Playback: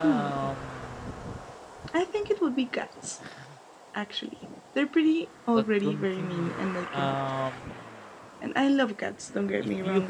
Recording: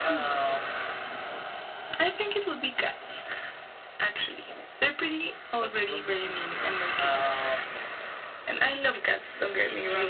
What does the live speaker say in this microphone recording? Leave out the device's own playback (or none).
none